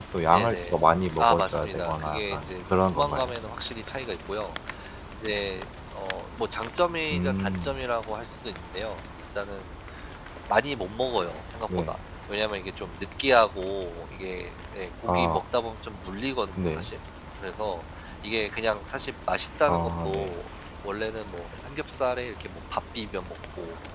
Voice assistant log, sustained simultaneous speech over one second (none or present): present